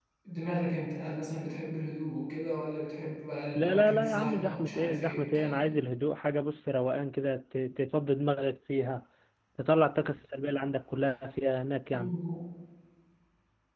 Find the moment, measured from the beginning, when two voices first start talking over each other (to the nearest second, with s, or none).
4 s